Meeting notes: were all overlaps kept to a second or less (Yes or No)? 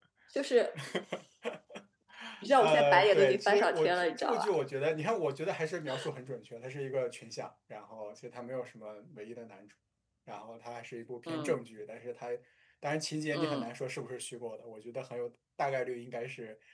No